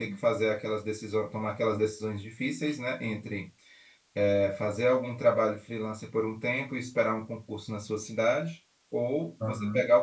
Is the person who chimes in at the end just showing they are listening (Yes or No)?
Yes